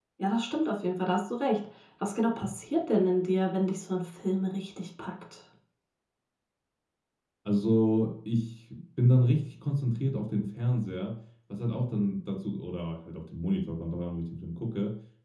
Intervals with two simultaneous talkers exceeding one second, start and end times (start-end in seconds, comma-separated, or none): none